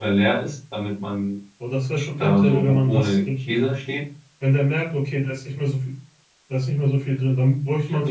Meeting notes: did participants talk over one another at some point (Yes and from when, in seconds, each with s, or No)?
Yes, from 2.0 s